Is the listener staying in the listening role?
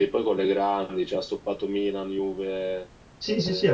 No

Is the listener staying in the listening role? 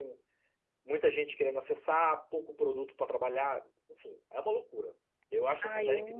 No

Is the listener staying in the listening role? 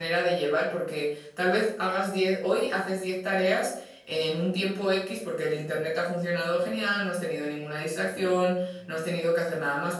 Yes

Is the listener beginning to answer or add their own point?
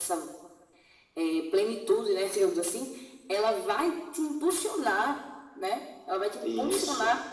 No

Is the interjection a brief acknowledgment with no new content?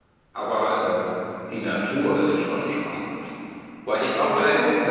No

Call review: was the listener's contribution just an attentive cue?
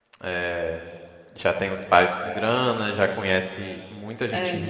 Yes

